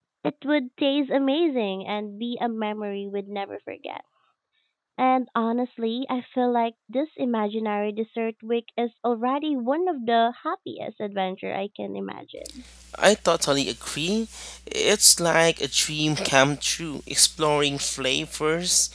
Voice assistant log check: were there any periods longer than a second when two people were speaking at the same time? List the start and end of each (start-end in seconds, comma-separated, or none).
none